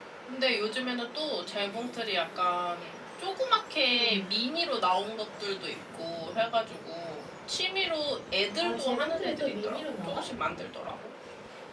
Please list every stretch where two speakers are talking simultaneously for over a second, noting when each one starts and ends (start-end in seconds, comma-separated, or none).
8.6-10.3